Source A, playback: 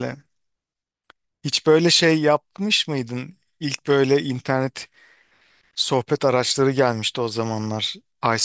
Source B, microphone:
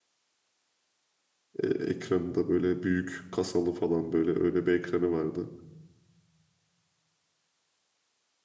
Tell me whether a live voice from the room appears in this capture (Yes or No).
Yes